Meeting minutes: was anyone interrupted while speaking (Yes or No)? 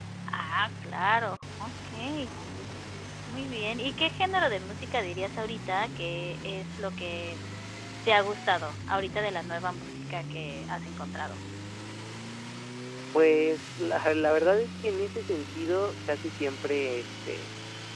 No